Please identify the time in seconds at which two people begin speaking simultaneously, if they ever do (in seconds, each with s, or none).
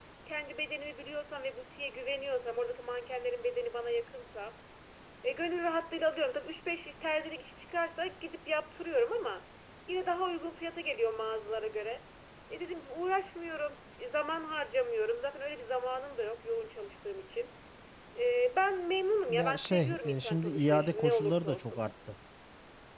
19.3 s